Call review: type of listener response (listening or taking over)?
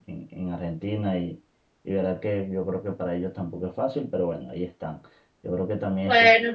taking over